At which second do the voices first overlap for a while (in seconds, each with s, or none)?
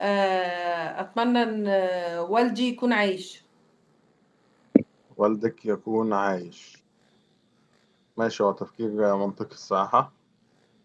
none